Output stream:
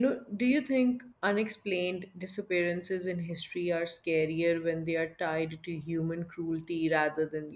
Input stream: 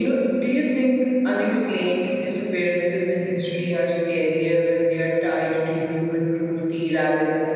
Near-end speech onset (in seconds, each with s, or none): none